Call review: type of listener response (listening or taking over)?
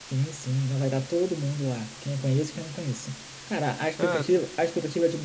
listening